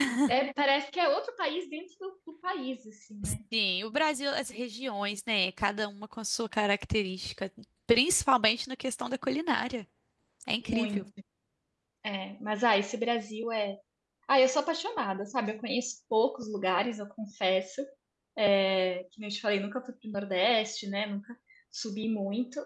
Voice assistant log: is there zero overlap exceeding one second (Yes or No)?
Yes